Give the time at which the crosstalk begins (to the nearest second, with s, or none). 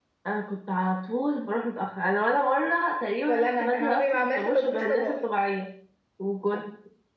3 s